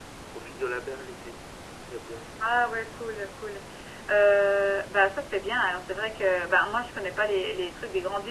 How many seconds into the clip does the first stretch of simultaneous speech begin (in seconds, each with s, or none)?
none